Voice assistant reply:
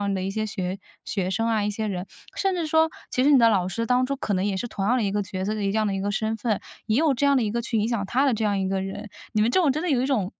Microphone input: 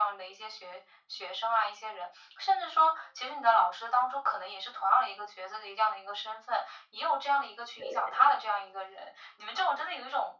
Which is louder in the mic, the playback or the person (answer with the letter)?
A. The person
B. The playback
B